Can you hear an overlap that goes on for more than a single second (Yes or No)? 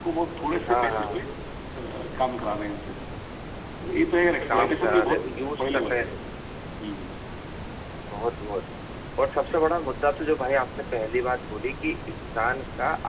Yes